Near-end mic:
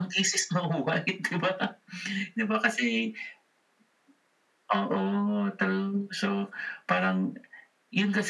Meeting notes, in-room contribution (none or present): none